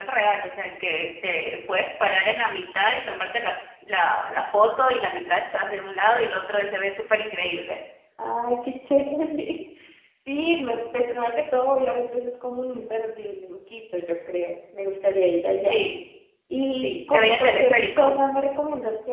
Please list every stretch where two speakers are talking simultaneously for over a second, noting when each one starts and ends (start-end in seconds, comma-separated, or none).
16.8-18.2